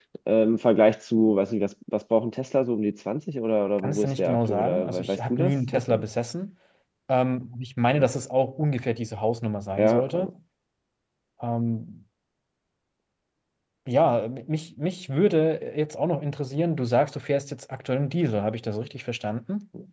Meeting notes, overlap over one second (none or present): present